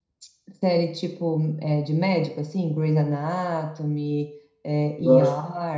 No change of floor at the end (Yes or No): No